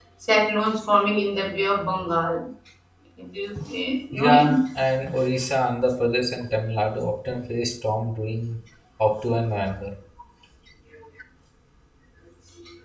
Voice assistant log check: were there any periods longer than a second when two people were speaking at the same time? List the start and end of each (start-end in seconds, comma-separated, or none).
none